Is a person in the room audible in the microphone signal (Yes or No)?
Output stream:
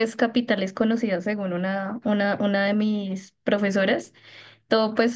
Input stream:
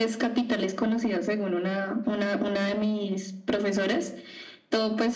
No